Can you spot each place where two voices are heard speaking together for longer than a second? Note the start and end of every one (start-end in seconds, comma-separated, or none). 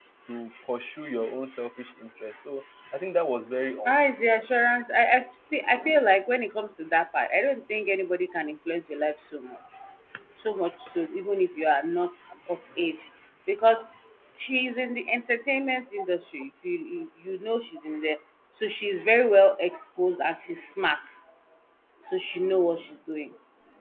none